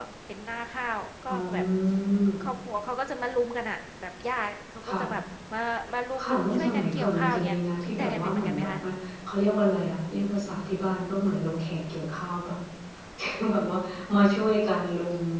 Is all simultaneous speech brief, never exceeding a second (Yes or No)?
No